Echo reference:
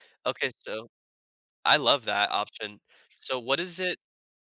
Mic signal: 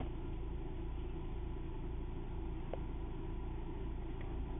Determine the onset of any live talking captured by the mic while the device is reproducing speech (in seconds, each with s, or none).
none